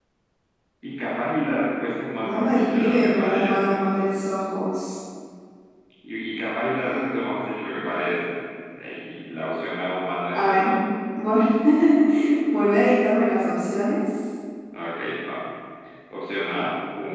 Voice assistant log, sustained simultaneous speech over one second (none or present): present